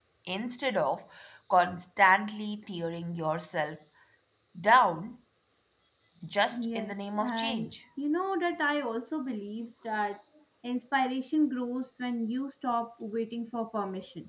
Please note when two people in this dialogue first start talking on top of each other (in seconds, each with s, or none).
6.5 s